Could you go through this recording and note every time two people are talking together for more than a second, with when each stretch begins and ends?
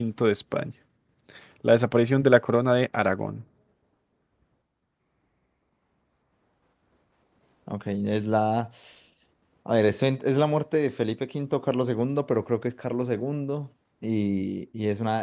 none

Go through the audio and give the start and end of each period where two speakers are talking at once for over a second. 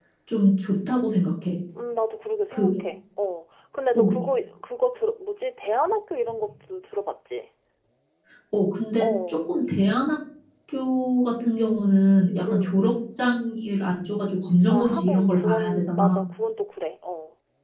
14.7-16.1

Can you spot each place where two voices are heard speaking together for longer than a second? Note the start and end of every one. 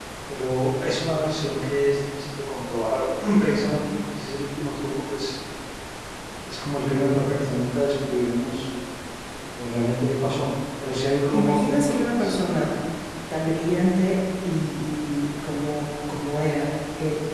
11.3-12.7

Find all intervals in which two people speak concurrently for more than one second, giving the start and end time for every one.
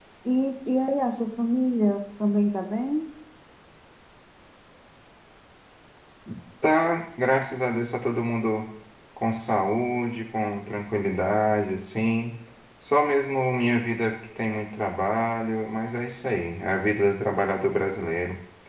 none

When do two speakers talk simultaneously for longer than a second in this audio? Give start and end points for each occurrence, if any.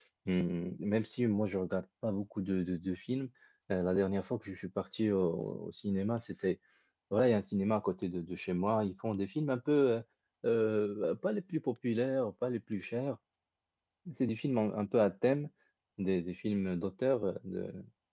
none

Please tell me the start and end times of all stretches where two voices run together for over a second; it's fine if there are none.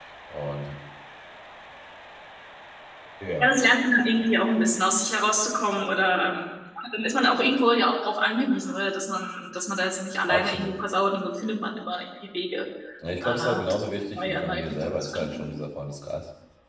14.2-15.5

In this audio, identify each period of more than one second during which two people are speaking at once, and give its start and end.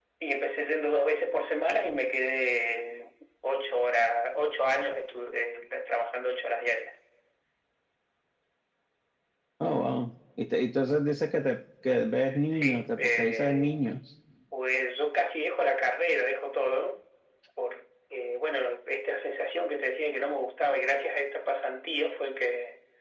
12.5-13.8

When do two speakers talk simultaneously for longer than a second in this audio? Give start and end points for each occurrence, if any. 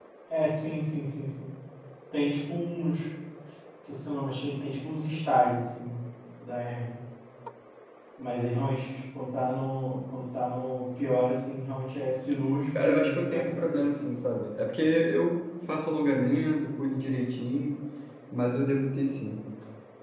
12.8-14.1

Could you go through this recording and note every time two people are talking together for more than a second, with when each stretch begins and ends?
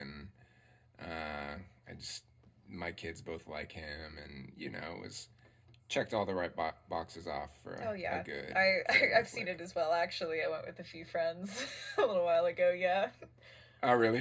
7.8-9.5

